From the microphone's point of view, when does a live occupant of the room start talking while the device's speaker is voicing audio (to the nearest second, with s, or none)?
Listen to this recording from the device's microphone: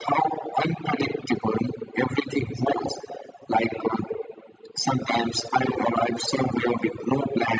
none